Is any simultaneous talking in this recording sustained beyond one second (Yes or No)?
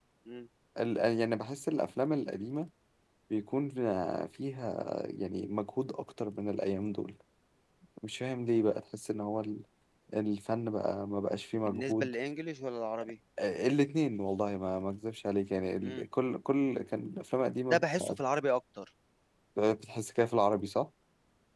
No